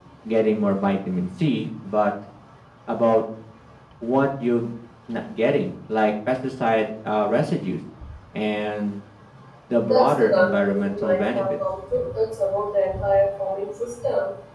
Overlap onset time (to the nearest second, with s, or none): 10 s